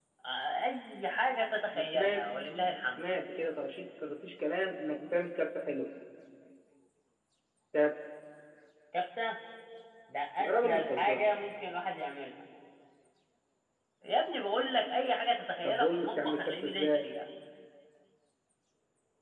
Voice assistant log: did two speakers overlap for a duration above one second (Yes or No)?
Yes